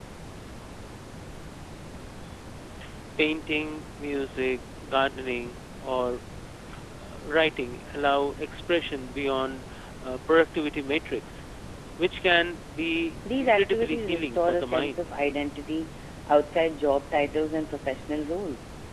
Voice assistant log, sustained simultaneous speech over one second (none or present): present